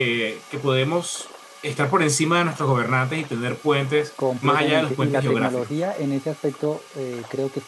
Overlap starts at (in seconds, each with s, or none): 4.4 s